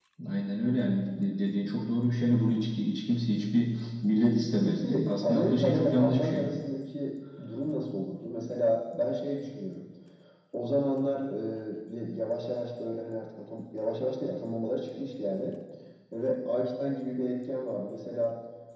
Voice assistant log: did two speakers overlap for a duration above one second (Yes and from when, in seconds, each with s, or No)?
Yes, from 4.6 s